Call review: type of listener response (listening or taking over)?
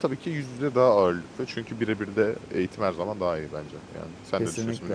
taking over